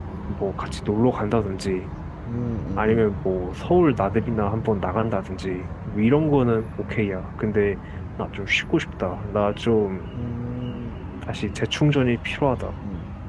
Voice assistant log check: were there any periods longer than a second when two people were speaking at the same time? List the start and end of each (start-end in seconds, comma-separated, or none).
none